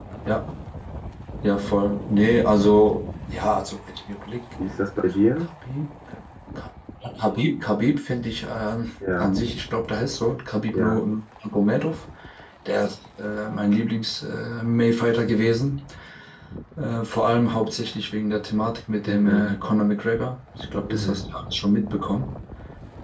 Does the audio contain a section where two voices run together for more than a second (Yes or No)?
No